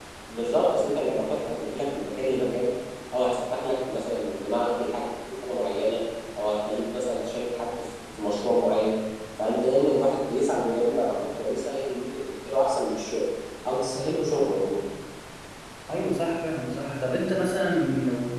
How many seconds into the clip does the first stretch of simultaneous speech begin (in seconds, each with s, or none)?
none